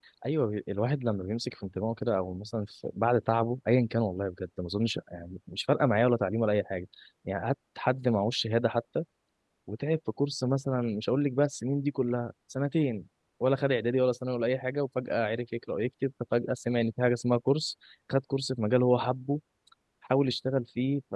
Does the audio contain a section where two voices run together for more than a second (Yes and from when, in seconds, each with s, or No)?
No